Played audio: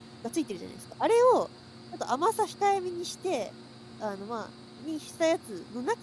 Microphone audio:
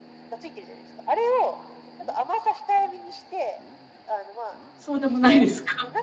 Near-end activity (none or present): present